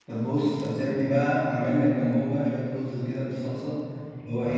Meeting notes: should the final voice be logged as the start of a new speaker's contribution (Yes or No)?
No